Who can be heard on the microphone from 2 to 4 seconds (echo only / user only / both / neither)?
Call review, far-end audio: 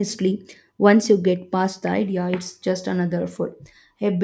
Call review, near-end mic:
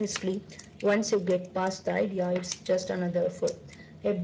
echo only